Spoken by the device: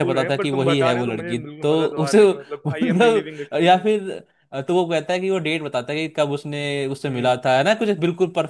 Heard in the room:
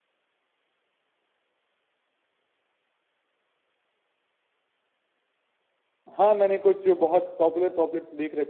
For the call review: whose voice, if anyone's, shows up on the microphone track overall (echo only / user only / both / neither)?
user only